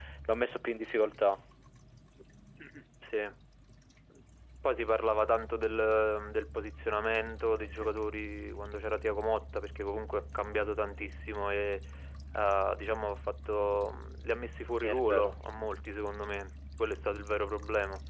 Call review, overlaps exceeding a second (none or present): none